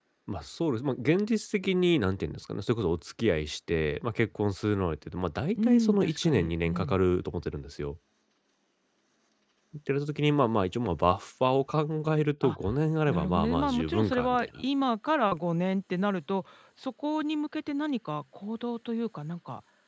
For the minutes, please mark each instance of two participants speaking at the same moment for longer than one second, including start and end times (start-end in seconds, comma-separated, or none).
5.6-7.0, 13.1-14.5